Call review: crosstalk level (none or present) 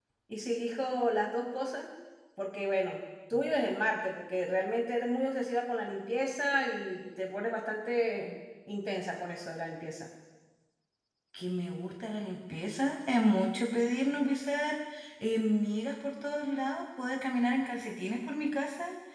none